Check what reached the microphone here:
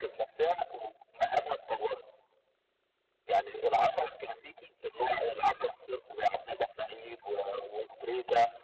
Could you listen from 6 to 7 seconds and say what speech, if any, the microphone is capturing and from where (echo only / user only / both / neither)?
echo only